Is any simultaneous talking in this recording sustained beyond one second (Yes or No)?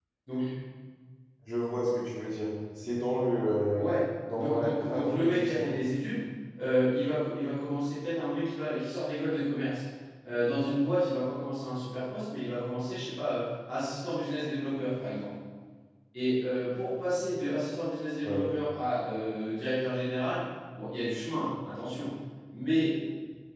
Yes